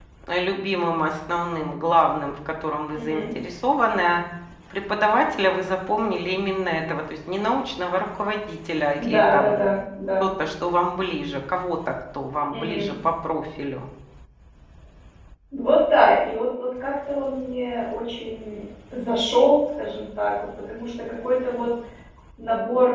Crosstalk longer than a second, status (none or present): none